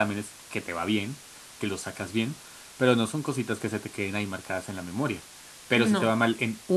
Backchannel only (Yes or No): Yes